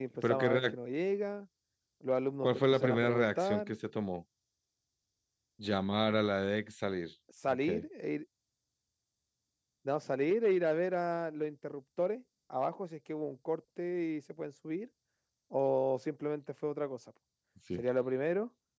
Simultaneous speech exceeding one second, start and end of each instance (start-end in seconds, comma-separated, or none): 2.4-3.7